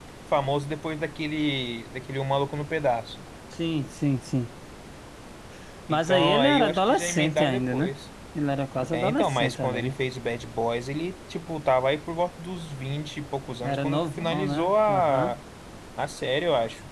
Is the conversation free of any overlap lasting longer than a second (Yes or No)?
No